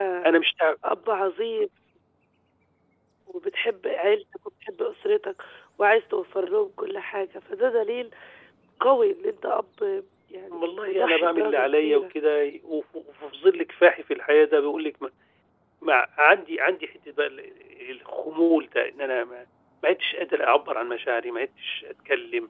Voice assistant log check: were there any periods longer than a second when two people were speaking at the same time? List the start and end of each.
10.5-12.0

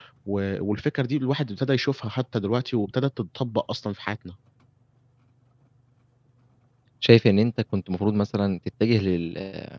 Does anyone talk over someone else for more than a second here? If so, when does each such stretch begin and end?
none

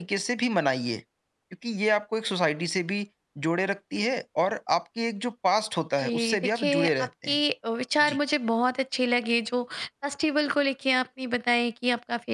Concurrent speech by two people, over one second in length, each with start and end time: 6.0-7.4

